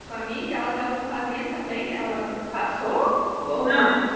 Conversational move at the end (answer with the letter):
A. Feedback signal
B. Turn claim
B